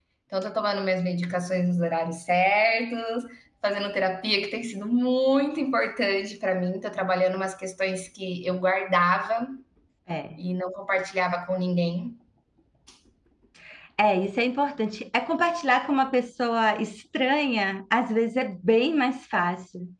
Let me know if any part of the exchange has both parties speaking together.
No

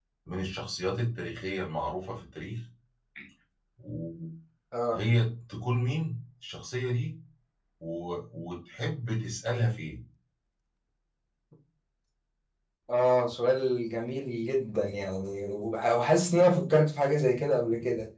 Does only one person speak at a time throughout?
Yes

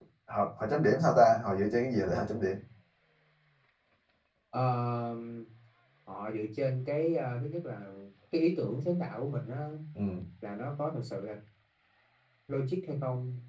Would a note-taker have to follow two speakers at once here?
No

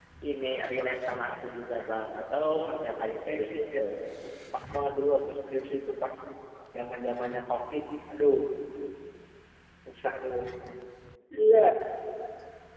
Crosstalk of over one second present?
Yes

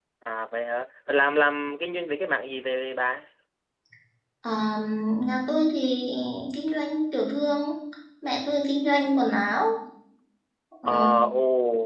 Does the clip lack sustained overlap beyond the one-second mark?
Yes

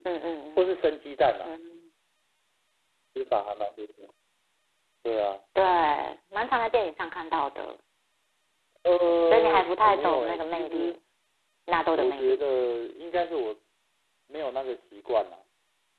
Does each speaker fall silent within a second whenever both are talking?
No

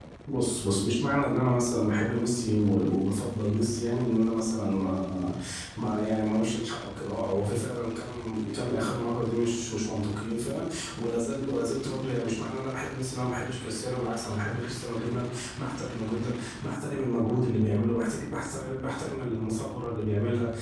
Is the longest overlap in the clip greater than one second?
No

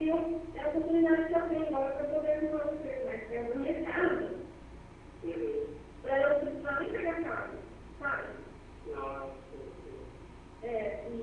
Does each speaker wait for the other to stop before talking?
Yes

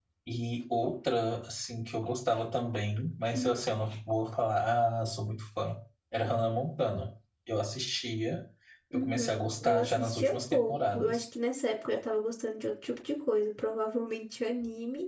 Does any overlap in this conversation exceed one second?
Yes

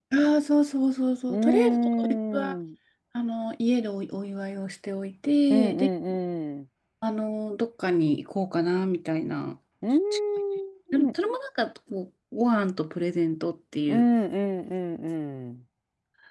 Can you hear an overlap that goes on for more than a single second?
Yes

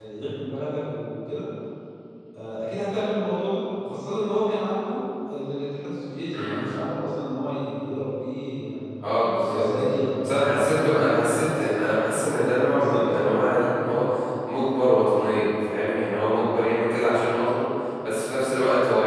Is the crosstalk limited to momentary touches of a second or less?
No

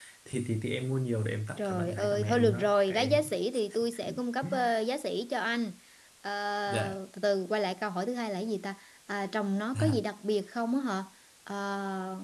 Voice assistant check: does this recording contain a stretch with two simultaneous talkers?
Yes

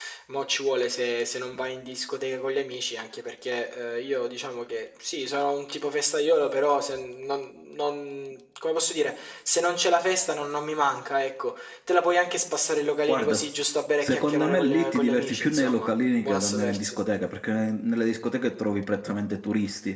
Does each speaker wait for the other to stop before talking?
No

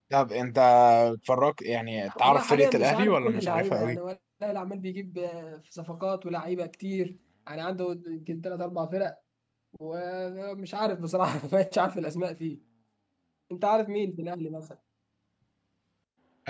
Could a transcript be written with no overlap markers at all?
No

